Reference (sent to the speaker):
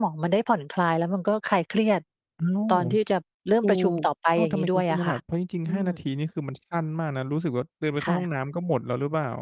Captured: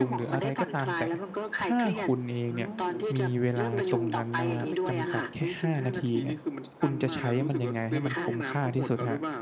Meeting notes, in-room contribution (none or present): present